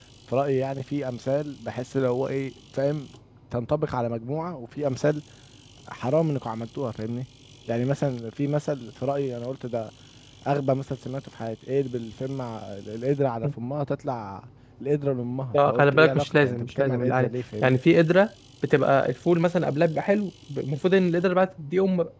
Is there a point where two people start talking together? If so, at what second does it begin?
16 s

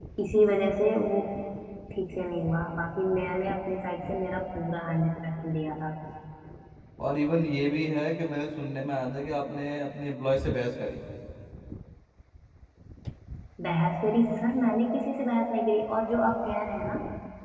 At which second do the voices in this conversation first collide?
none

